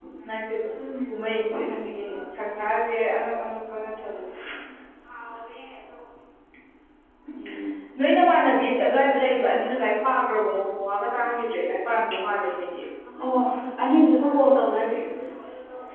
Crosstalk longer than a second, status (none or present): none